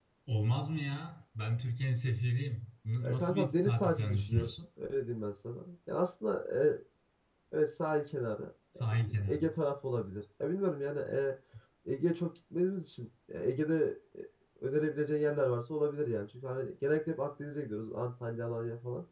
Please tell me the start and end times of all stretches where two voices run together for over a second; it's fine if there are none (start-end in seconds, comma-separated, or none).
3.0-4.5